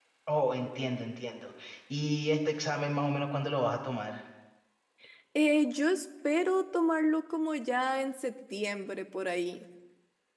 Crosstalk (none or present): none